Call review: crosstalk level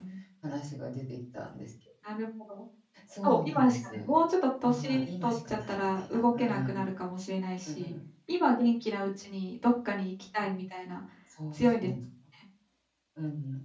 present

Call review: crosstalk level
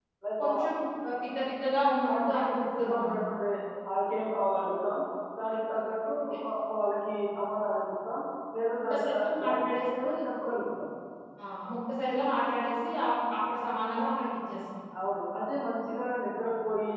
present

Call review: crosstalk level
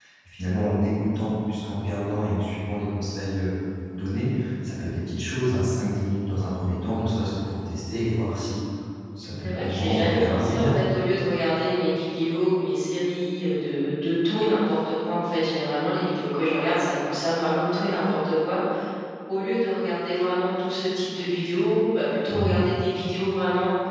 present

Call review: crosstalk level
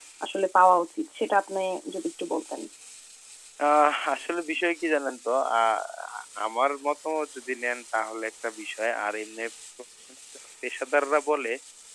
none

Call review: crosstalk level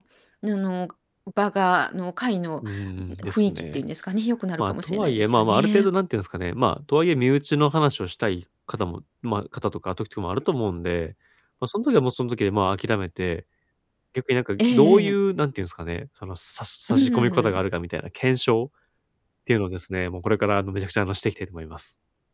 present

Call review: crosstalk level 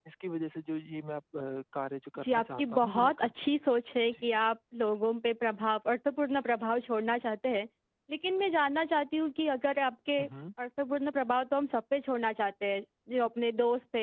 present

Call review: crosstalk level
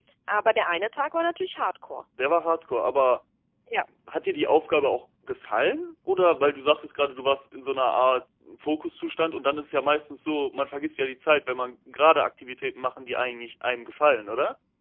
none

